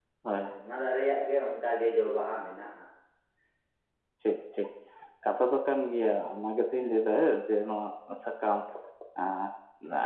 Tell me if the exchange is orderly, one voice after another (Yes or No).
Yes